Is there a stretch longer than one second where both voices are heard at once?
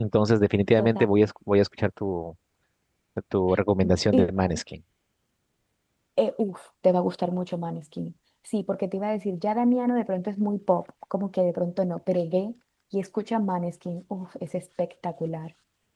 No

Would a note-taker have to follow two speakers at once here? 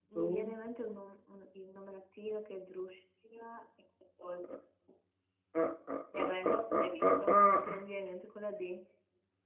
Yes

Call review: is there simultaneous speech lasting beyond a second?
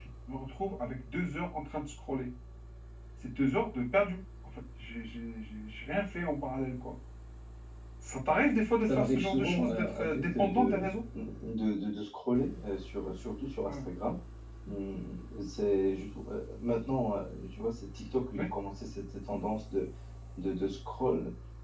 Yes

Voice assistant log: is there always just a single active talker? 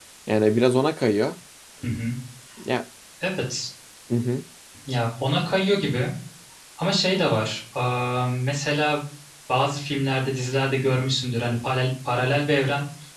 Yes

